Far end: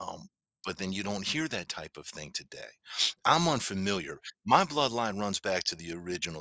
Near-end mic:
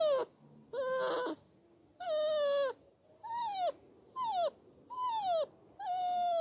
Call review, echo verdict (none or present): none